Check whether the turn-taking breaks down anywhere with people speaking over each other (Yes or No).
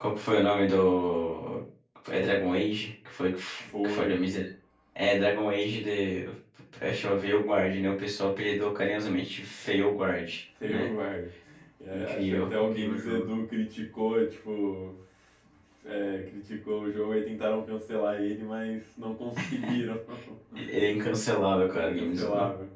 Yes